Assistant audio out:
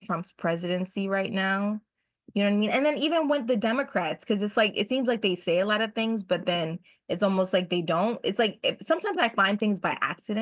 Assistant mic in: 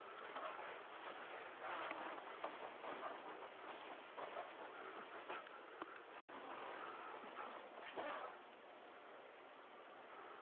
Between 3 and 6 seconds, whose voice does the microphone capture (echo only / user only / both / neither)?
neither